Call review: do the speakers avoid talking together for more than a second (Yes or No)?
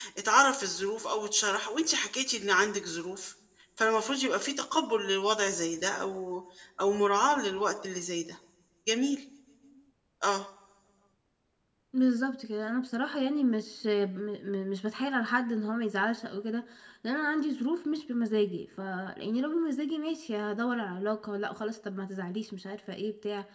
Yes